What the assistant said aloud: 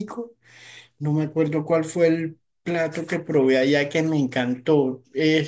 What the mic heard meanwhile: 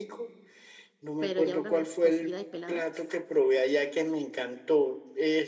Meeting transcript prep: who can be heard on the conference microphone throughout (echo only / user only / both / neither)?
both